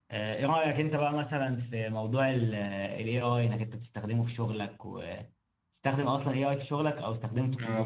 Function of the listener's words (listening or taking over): taking over